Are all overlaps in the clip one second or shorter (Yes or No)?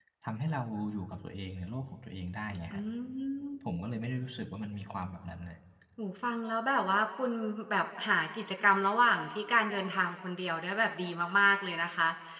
Yes